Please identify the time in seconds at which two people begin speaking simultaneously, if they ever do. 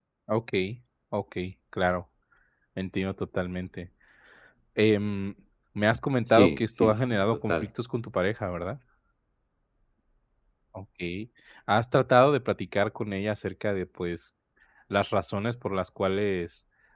6.3 s

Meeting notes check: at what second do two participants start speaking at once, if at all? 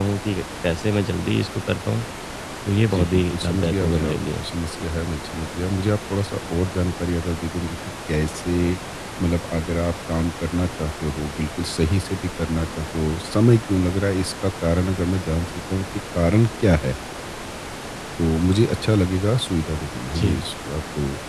2.9 s

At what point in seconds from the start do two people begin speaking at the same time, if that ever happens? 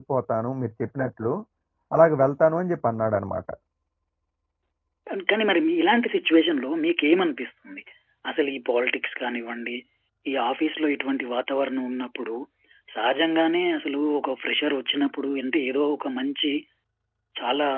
none

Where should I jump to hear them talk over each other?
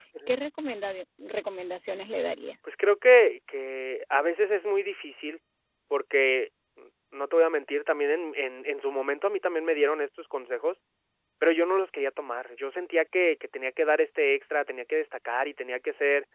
none

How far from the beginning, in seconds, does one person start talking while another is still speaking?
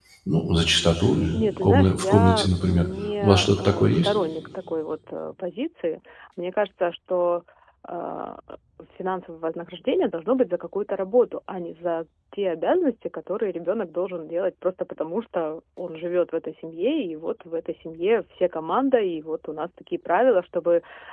1.3 s

